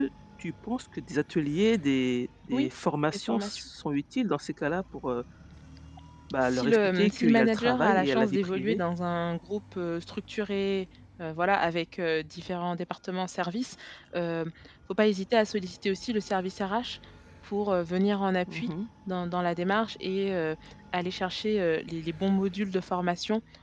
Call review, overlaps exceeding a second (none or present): present